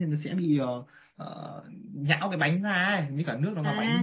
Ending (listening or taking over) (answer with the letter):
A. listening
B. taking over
B